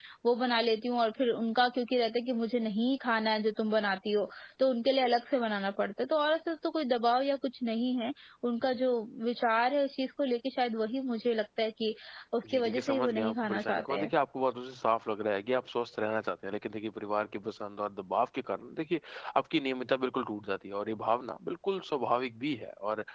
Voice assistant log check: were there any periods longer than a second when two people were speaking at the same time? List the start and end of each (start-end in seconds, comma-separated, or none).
12.4-14.1